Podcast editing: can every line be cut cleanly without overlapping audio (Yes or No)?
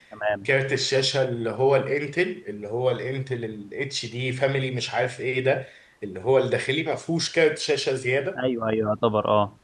Yes